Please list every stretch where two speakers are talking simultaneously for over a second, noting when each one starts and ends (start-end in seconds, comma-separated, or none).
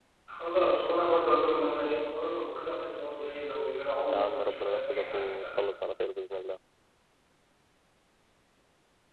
4.1-5.6